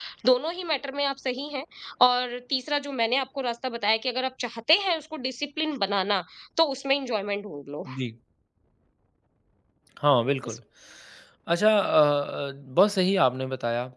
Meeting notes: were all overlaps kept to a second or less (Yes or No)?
Yes